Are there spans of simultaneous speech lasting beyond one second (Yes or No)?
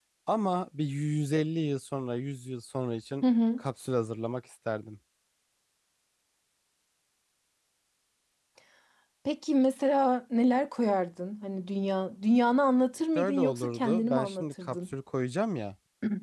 Yes